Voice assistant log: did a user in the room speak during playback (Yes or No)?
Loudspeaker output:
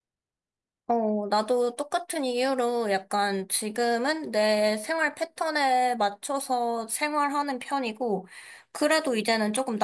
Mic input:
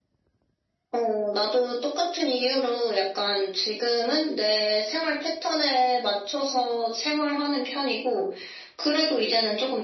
No